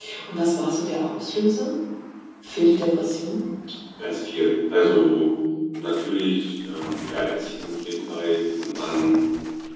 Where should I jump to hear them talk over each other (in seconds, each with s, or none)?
none